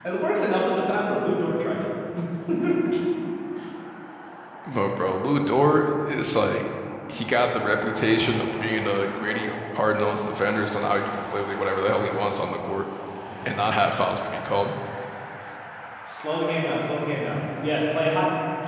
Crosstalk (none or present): none